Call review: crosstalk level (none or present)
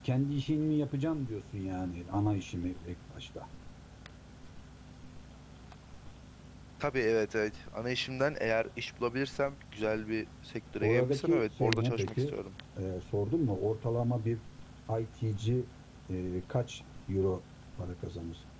present